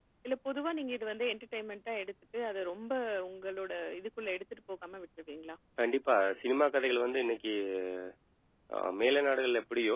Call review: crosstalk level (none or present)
none